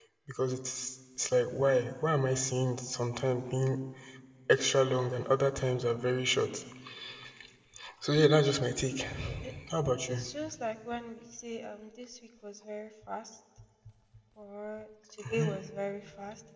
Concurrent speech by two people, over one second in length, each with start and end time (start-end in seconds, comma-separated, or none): none